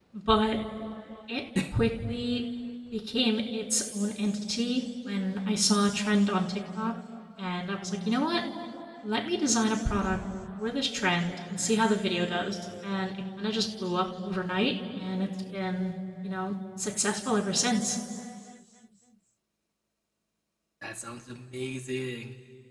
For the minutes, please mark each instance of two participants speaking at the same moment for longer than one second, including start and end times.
none

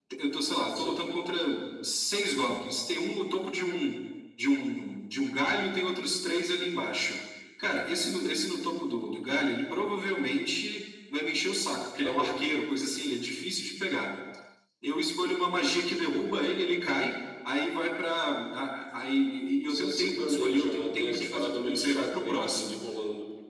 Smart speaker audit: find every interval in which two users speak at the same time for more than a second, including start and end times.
19.7-22.8

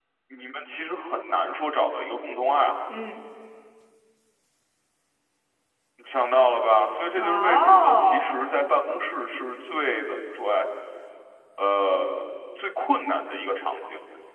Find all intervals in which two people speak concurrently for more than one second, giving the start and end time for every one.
7.2-8.4

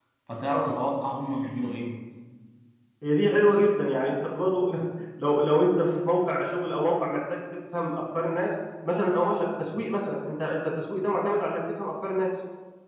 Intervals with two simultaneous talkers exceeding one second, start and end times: none

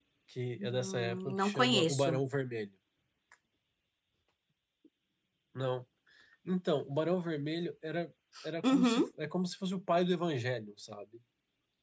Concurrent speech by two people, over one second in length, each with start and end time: 0.6-2.2

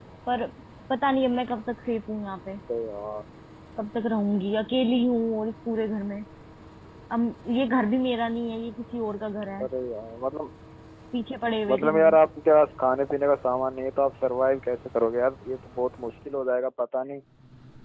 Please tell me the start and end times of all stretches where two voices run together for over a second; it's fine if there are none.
none

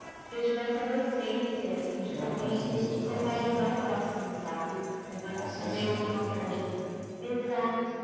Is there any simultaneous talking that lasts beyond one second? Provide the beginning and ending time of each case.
2.1-3.6, 5.2-6.5

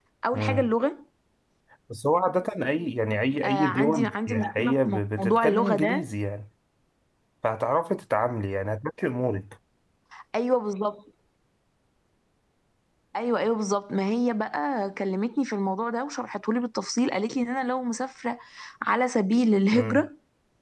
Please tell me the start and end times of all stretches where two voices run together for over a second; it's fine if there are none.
3.4-6.0

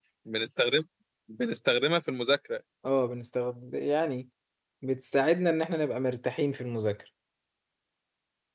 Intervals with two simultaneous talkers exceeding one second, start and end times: none

